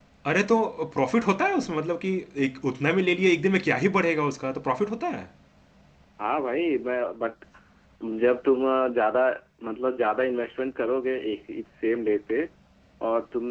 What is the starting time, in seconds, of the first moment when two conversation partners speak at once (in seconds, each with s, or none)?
none